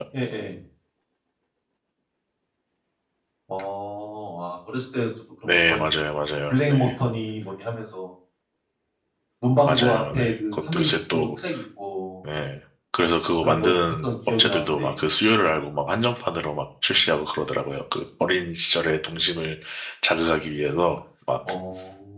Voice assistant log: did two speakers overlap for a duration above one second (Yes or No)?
Yes